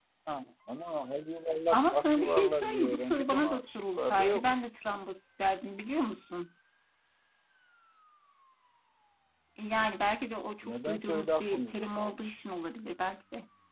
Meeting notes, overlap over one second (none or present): present